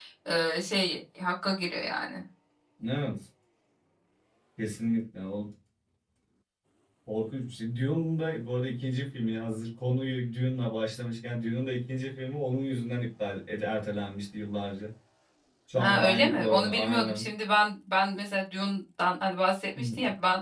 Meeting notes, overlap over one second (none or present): present